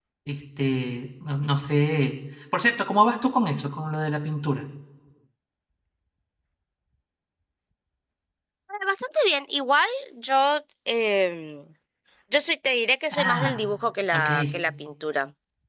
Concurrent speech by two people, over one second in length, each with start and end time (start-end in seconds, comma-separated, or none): none